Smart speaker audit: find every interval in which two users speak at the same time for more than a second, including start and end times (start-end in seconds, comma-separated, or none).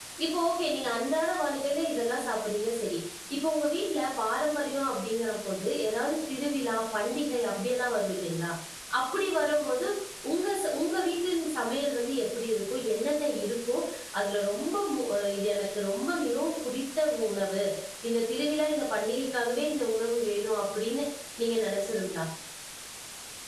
none